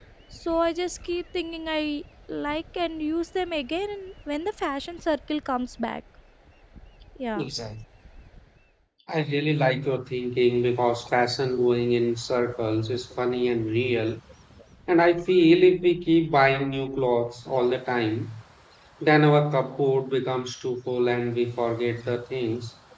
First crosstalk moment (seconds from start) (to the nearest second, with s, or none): none